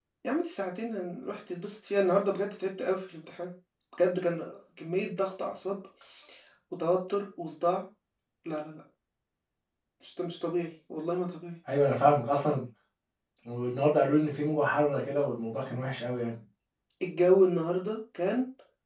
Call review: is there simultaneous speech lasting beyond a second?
No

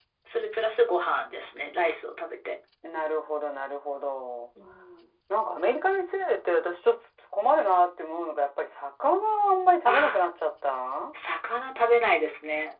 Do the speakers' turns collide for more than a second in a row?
No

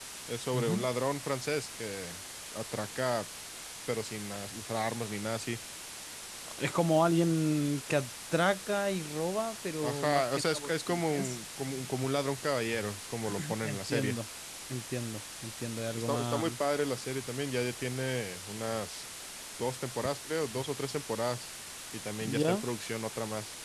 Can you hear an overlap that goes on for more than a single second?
Yes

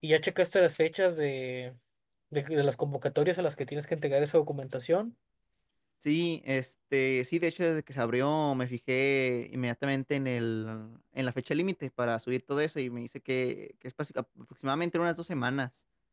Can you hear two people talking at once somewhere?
No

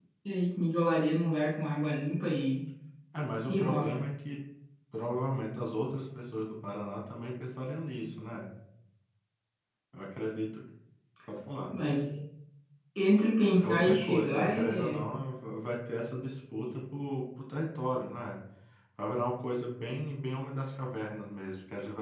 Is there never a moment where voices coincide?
No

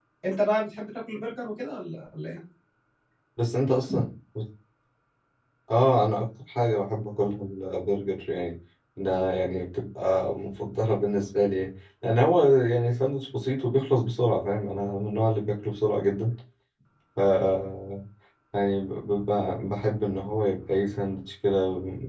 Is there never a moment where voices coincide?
Yes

